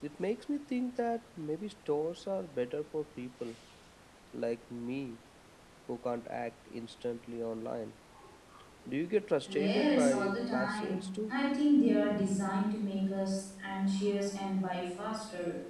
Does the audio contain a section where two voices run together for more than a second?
Yes, from 9.5 s

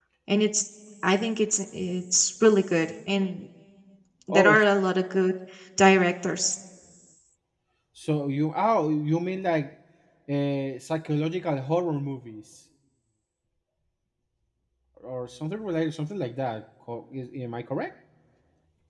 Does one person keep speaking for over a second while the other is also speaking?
No

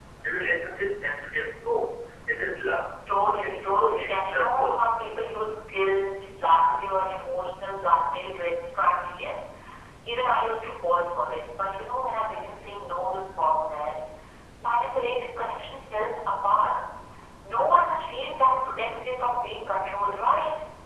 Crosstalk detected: Yes, from 3.4 s

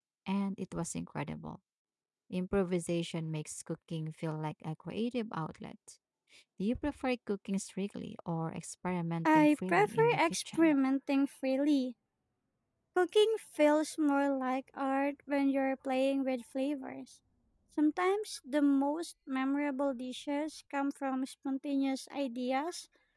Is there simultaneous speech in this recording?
Yes, from 9.2 s

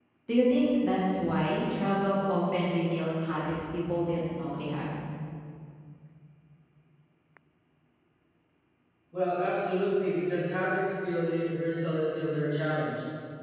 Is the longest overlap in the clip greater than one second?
No

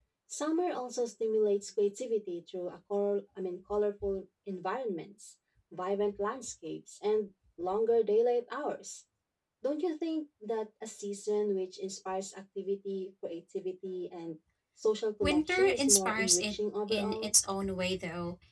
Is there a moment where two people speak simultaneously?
Yes, from 15.2 s

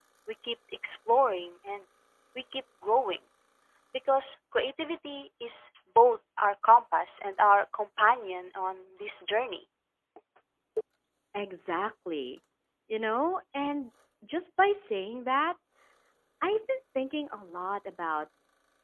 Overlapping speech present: No

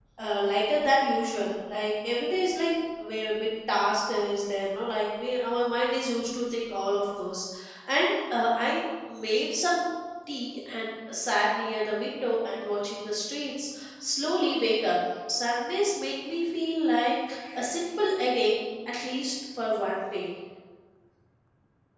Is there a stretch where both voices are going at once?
No

